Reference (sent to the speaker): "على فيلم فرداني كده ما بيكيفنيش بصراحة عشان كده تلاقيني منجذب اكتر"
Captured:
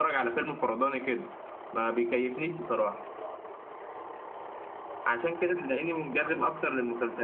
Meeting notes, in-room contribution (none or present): none